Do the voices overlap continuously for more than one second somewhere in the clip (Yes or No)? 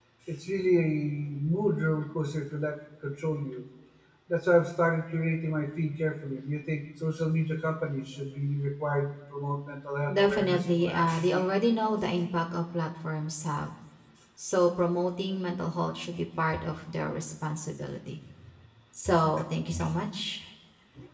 Yes